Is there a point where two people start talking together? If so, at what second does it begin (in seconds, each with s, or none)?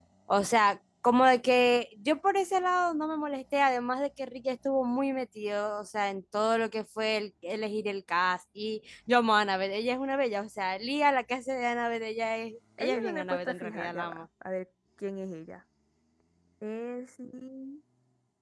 12.8 s